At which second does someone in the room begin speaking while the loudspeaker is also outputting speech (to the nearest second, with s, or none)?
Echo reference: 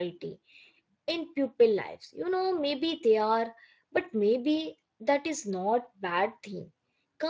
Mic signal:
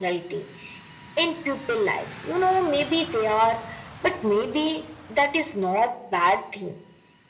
none